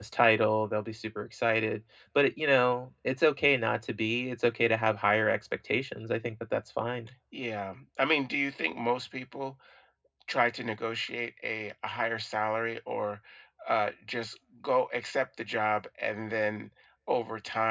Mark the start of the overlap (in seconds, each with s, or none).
none